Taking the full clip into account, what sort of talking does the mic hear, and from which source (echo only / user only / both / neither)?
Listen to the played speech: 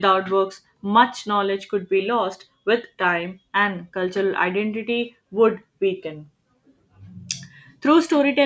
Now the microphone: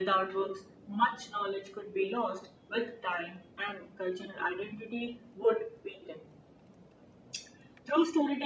echo only